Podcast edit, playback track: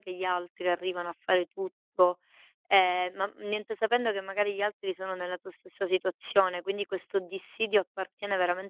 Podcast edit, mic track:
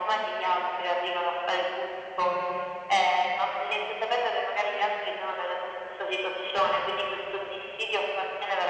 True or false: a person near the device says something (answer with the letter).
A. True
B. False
B